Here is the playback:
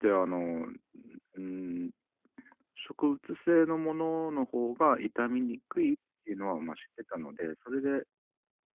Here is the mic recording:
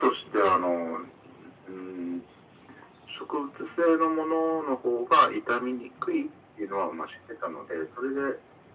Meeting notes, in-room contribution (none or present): none